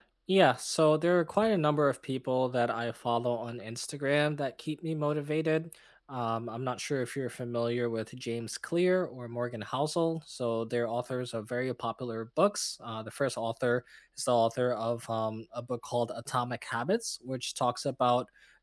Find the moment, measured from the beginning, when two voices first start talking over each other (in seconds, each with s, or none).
none